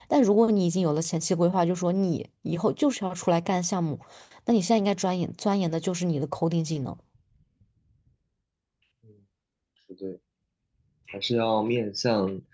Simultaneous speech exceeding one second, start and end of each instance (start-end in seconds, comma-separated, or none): none